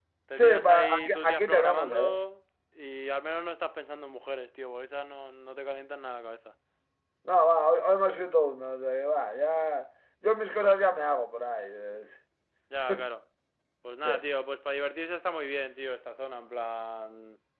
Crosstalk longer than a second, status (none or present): present